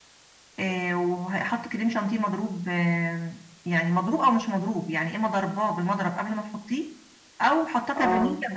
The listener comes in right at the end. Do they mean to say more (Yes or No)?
No